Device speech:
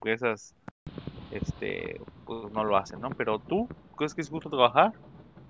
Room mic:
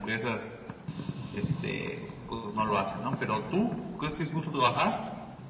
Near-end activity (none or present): none